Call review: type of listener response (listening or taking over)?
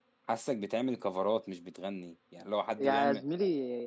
taking over